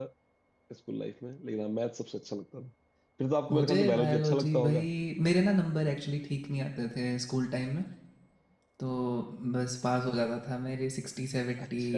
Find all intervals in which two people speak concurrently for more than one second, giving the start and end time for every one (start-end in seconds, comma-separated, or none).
3.5-4.8